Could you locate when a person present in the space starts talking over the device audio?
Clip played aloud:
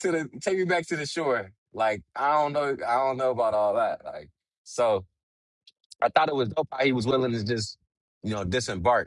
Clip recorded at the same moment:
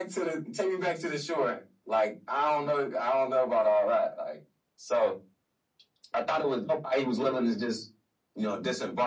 none

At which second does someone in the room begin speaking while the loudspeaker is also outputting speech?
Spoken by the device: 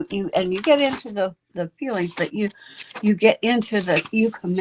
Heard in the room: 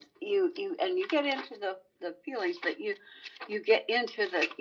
none

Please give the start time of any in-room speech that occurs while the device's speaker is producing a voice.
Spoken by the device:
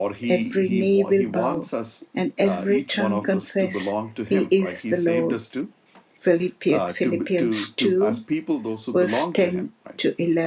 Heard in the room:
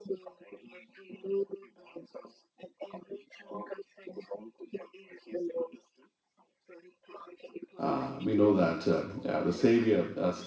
8 s

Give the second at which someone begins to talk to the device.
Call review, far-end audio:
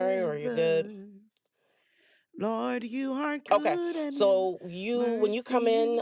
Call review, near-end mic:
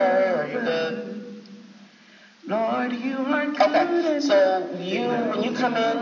5 s

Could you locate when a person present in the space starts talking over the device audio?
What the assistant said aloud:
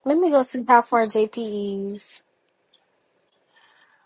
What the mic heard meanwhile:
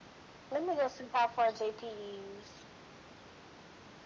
none

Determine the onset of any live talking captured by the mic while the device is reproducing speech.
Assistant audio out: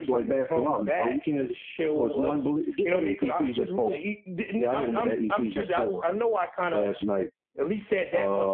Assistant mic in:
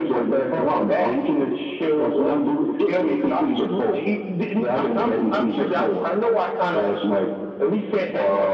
none

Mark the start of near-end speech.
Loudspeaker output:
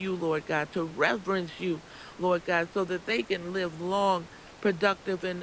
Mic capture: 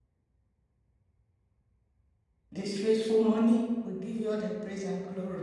3 s

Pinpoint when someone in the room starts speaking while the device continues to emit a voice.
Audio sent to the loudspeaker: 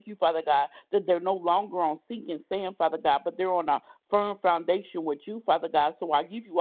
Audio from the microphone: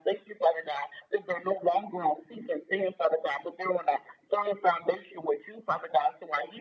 none

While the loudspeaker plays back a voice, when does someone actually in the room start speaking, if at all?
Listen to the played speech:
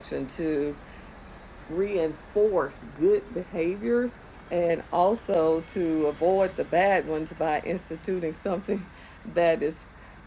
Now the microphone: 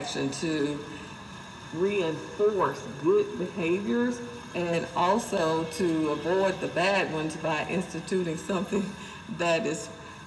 none

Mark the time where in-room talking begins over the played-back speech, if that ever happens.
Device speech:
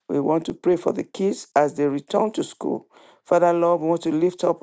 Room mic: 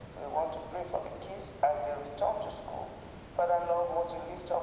none

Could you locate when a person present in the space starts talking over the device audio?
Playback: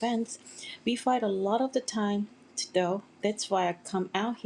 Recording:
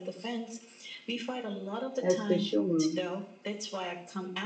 2 s

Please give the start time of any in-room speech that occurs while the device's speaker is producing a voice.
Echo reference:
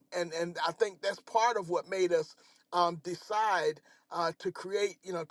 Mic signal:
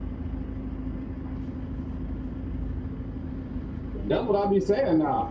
4 s

